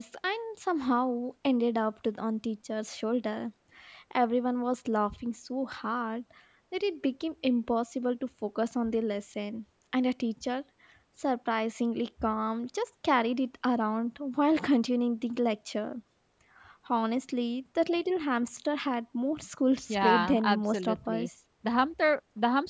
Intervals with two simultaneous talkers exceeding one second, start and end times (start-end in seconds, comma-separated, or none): 19.9-21.3